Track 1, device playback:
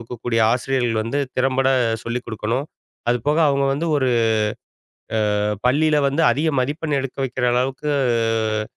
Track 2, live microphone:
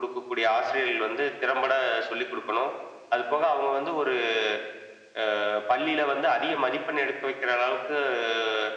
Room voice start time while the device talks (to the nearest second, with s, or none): none